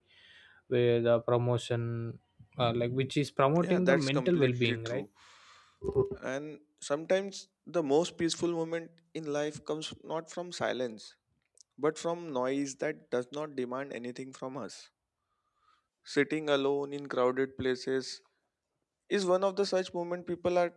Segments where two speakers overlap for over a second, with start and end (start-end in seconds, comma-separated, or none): 3.6-5.0